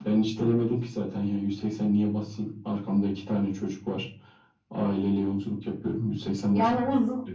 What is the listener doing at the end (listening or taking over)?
taking over